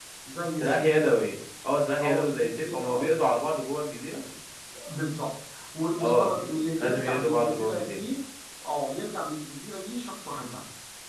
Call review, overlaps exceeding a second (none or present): present